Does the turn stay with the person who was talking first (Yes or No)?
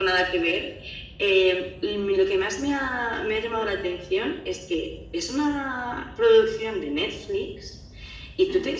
Yes